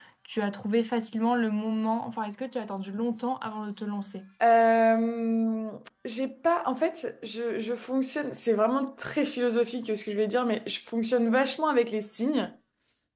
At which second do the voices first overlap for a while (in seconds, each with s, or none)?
none